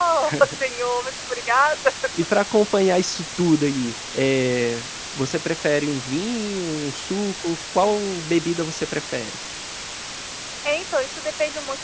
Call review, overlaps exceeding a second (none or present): none